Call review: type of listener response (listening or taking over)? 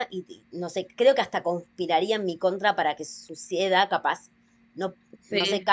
listening